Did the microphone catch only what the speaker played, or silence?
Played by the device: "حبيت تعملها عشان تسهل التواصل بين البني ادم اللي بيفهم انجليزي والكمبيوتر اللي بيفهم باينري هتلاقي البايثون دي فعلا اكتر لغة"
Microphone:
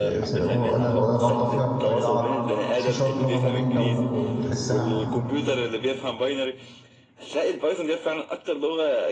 No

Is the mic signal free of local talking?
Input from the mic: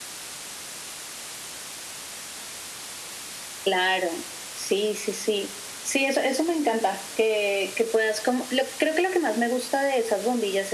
Yes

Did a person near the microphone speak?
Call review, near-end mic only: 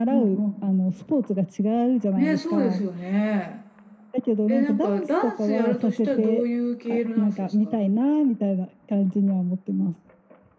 Yes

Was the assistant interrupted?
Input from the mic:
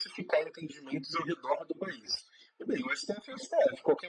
No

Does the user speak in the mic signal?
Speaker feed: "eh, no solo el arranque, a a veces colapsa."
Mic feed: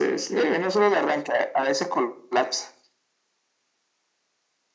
No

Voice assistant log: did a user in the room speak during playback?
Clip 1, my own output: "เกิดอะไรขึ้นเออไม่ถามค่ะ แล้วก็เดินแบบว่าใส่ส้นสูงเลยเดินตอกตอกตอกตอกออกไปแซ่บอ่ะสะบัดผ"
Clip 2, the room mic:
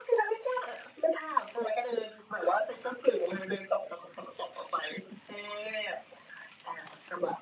No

